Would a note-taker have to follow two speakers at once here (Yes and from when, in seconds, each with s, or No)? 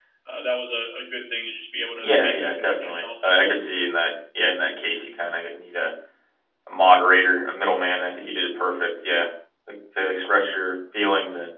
Yes, from 2.0 s